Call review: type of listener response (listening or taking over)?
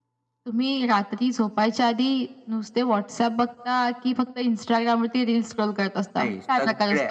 taking over